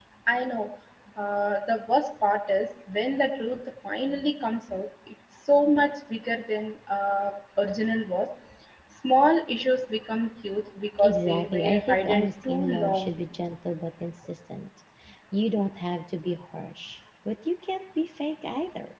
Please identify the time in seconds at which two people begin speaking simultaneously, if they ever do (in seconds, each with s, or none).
11.0 s